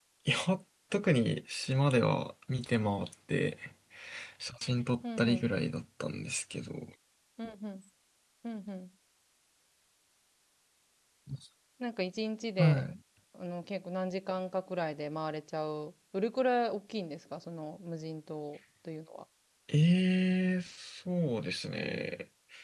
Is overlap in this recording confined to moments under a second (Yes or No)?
Yes